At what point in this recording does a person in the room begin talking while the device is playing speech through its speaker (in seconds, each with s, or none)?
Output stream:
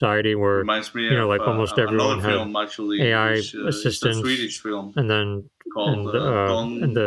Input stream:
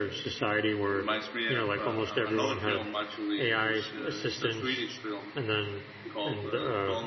none